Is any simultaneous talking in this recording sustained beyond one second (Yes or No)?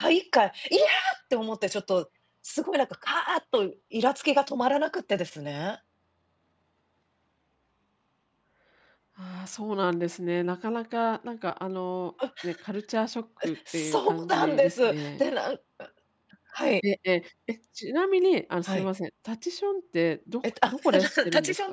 Yes